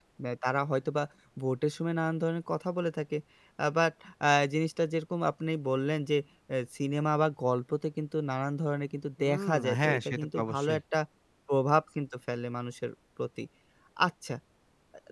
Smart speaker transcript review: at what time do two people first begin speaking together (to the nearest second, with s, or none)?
9 s